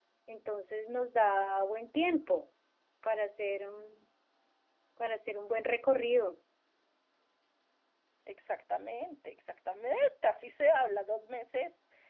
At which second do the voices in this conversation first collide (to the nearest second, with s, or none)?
none